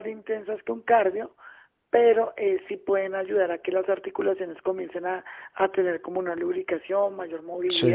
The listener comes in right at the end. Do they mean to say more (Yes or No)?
No